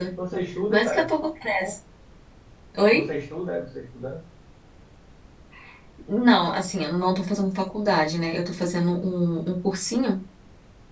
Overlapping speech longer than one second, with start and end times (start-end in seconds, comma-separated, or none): none